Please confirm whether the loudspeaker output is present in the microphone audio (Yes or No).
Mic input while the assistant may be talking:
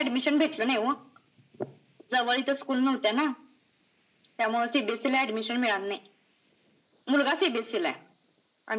Yes